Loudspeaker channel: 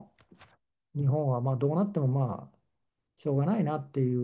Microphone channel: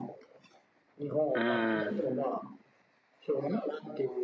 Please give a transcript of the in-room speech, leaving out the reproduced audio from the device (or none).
うん。